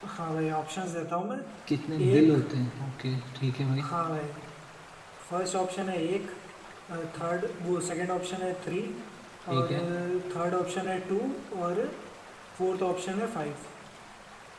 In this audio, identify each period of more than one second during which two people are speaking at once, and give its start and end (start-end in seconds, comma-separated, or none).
none